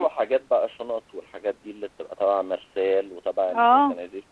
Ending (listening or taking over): listening